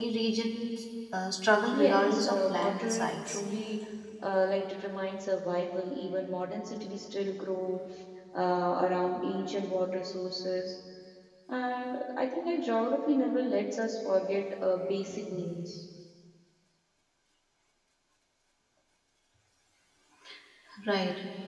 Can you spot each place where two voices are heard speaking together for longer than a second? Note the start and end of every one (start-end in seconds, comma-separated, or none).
1.7-3.4